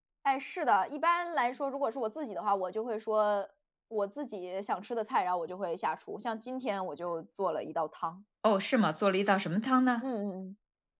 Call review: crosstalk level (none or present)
none